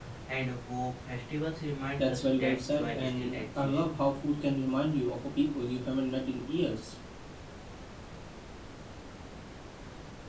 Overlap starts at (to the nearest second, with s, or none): 2 s